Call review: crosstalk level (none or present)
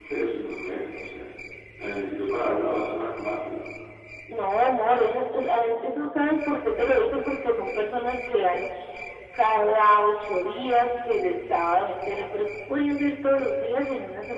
none